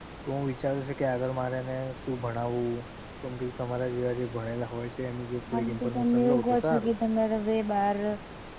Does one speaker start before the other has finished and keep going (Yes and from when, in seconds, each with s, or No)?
Yes, from 5.5 s